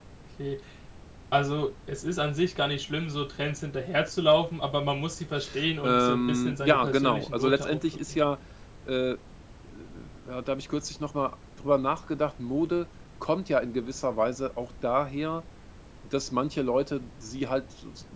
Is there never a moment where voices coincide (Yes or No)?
No